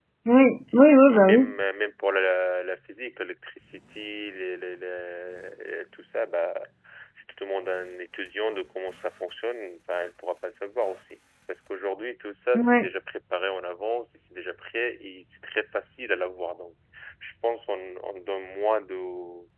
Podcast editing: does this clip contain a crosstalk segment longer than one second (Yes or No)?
No